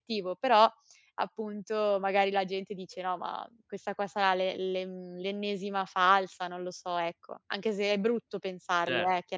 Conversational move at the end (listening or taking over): taking over